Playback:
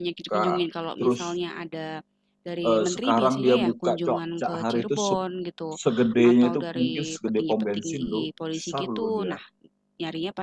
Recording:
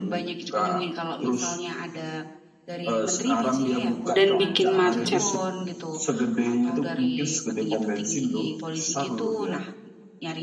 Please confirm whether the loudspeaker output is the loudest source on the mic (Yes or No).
No